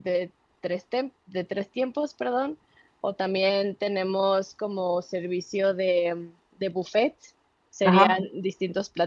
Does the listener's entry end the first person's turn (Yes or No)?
No